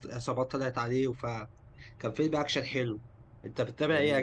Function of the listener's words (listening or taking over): taking over